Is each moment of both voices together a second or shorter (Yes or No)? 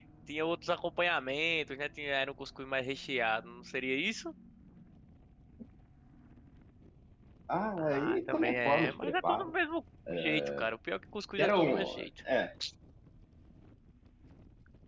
No